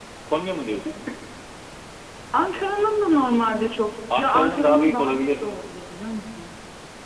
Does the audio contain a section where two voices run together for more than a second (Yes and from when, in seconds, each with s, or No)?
Yes, from 4.1 s